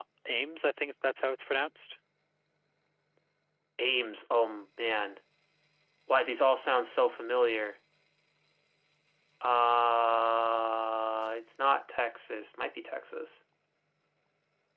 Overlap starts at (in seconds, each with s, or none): none